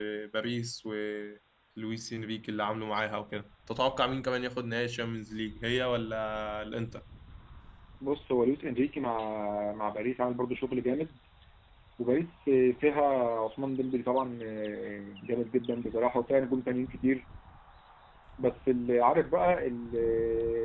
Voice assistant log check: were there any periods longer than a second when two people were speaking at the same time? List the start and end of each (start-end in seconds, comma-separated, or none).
none